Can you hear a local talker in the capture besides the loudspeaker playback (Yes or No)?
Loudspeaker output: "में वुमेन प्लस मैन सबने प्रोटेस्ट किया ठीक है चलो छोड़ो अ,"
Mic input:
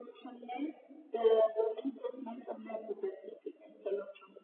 No